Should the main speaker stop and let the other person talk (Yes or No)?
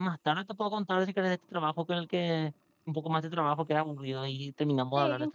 Yes